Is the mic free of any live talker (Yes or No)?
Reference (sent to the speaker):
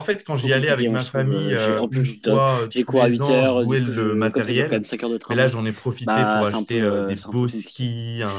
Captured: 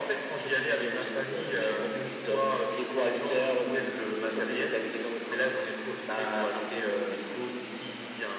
Yes